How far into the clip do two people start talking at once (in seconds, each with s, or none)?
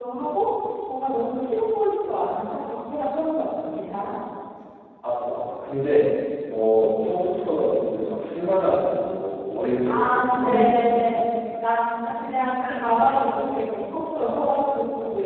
9.8 s